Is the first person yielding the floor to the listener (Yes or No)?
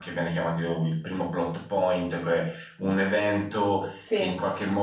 No